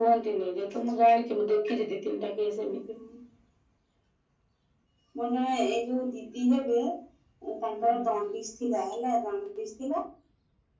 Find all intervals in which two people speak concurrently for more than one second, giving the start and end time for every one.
none

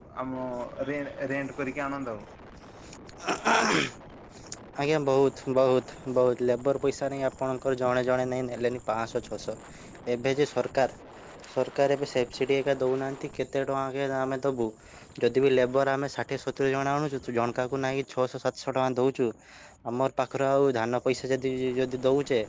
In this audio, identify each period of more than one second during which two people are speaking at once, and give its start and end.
none

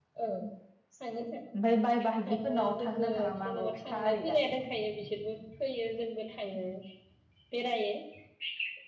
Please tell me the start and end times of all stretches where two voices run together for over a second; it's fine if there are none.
2.3-4.5

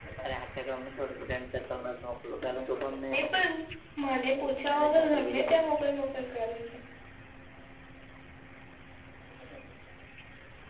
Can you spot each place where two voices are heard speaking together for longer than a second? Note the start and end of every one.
4.3-5.6

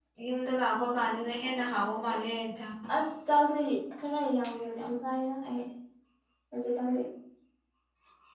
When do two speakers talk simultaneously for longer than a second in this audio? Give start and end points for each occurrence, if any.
none

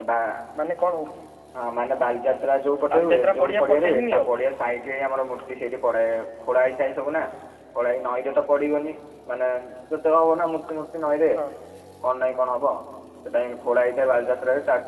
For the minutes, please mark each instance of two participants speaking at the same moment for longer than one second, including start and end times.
2.9-4.2

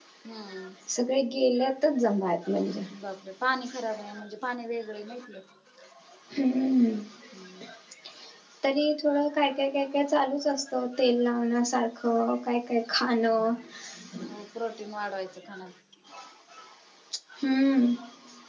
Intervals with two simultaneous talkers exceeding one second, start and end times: none

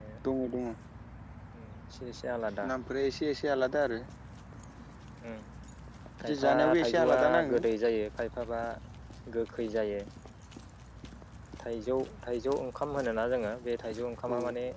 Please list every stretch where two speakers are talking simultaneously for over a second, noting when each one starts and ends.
6.2-7.6

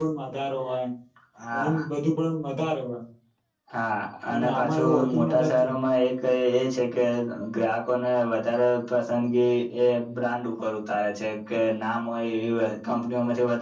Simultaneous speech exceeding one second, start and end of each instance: 4.3-5.7

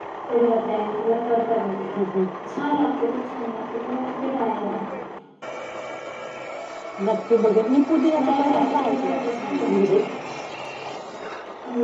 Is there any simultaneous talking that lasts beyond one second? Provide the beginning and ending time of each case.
8.2-10.0

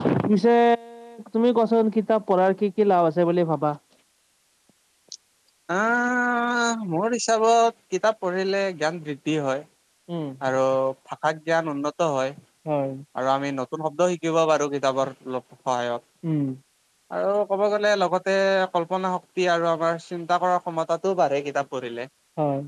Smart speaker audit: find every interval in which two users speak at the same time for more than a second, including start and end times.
none

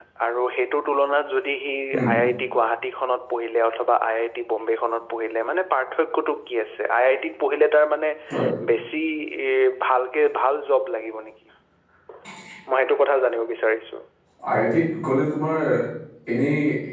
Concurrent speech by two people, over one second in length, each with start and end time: none

